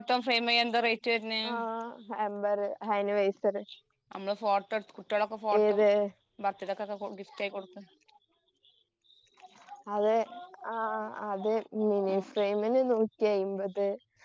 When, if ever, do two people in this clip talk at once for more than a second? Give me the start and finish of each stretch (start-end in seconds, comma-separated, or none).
none